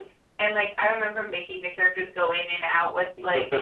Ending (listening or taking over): listening